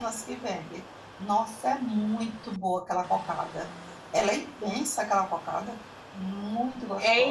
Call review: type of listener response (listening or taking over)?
taking over